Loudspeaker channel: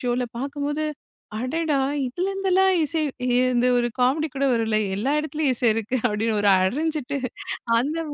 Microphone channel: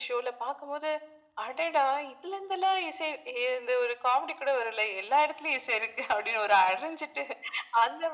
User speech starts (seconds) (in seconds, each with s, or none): none